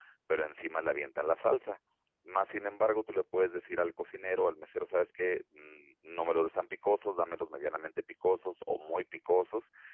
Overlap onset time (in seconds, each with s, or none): none